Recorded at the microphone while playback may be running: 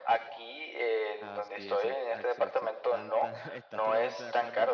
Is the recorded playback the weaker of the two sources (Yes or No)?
No